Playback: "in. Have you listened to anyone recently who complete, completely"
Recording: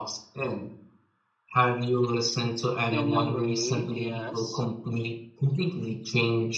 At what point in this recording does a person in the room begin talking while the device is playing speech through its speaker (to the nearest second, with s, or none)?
3 s